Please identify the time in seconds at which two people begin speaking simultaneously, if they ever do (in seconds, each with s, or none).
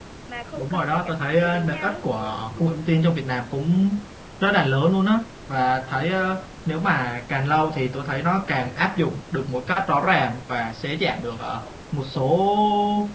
0.6 s